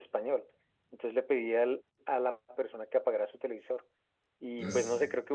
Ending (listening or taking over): listening